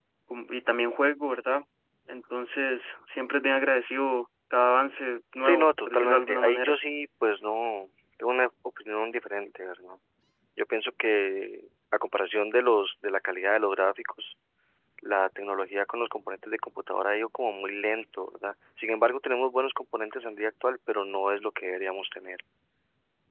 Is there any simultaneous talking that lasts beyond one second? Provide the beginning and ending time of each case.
5.4-6.8

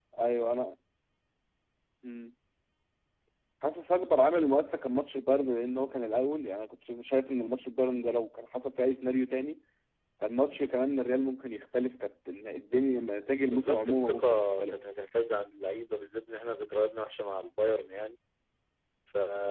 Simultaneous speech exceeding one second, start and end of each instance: 13.5-14.8

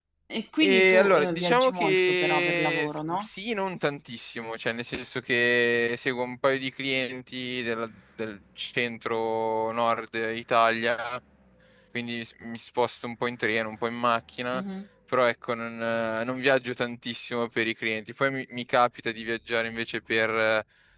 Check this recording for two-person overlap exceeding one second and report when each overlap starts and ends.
0.6-3.3

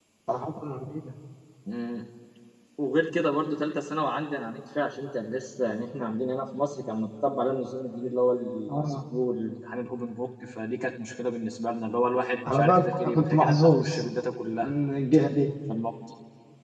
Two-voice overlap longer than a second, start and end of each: 12.5-14.0

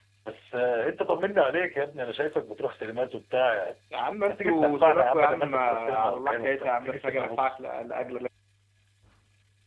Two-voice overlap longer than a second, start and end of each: 4.3-7.5

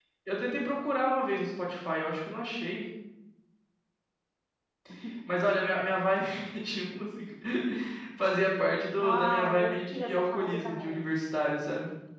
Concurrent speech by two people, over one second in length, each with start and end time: 9.0-11.0

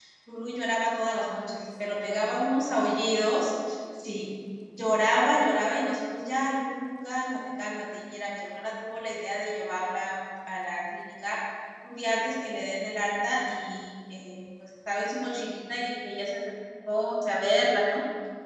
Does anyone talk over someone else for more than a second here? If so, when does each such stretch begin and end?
1.0-2.5

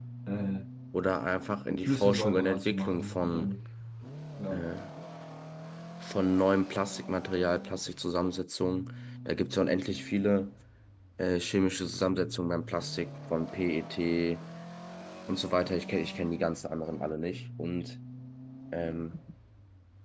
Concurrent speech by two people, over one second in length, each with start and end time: 1.8-3.5

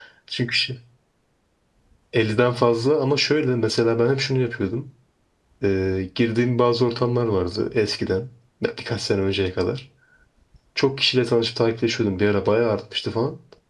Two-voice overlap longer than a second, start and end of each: none

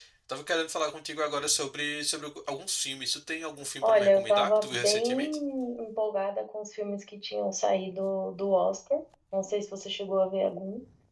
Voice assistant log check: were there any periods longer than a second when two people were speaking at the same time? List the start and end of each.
3.8-5.1

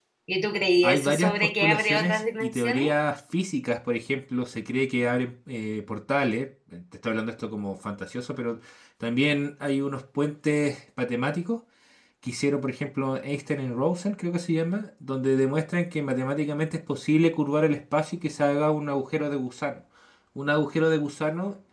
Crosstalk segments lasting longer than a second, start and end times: 0.8-2.9

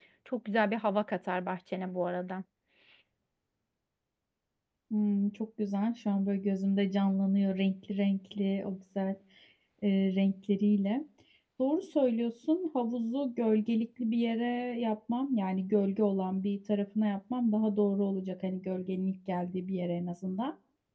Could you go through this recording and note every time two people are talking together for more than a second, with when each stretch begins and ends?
none

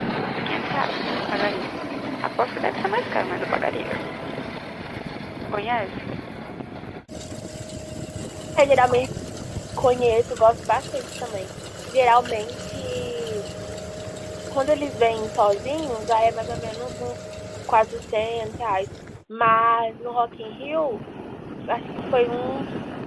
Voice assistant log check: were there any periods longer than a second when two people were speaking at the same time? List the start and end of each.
none

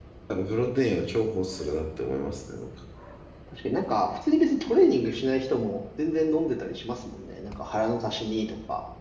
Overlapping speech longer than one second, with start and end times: none

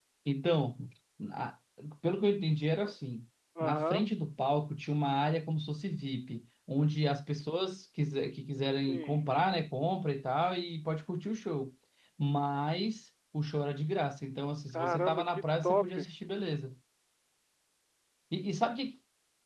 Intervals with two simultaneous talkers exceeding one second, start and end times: 14.7-16.0

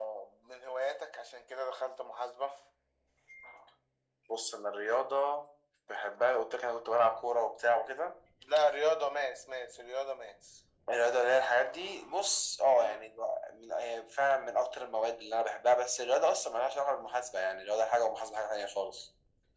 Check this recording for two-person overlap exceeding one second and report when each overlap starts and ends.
none

